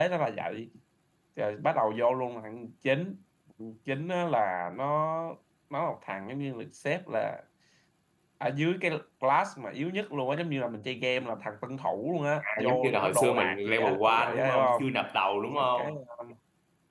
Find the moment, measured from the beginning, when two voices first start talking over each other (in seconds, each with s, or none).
12.6 s